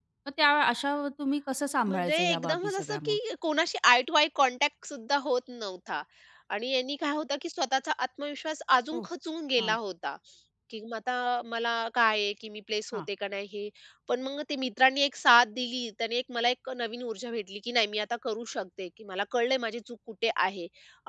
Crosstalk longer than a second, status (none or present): present